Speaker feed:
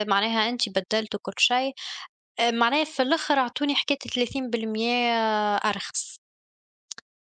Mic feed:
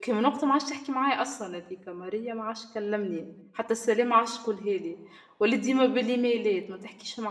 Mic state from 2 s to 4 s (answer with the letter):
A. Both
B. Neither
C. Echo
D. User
D